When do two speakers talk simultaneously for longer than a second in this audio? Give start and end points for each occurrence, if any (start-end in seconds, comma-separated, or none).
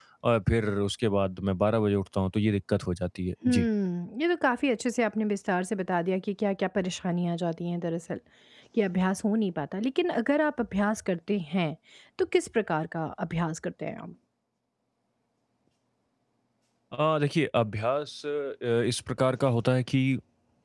none